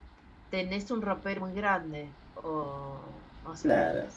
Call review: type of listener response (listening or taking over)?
taking over